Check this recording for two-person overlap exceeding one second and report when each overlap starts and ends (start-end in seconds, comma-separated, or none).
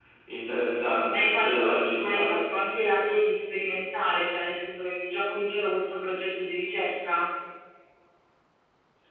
1.1-2.4